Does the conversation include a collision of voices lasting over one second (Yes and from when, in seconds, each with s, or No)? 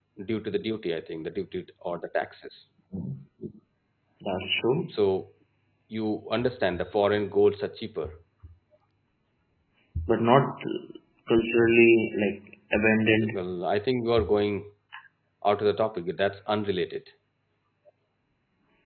No